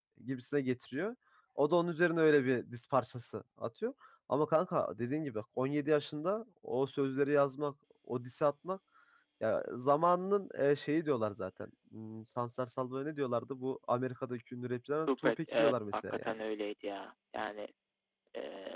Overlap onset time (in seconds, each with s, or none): 15.1 s